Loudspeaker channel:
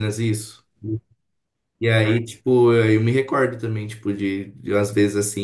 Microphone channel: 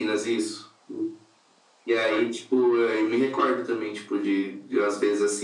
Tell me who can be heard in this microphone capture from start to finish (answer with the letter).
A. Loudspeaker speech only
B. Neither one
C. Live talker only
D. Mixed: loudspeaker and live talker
A